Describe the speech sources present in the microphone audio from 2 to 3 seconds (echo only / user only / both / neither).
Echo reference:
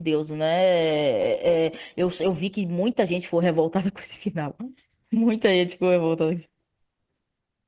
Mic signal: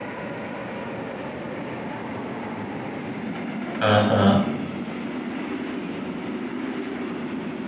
neither